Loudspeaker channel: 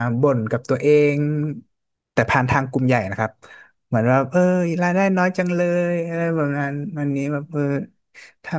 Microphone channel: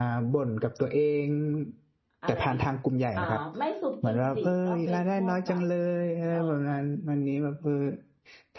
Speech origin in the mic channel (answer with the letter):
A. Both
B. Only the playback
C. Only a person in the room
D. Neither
A